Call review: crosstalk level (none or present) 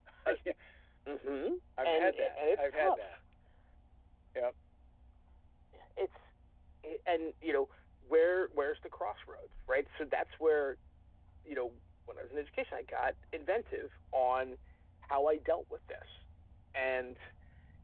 present